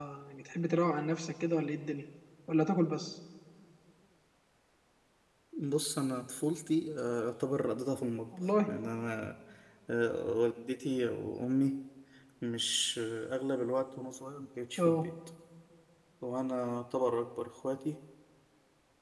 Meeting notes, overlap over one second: none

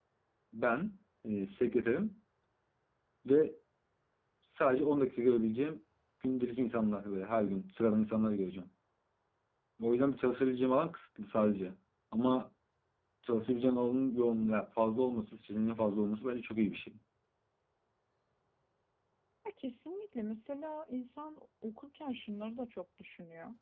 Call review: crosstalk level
none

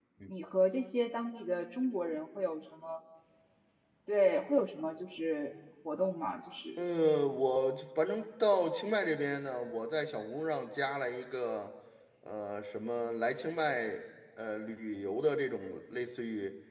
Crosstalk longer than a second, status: none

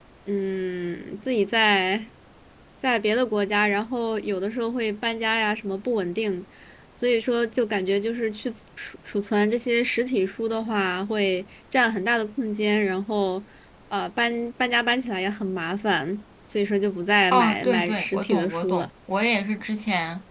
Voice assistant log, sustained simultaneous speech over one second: present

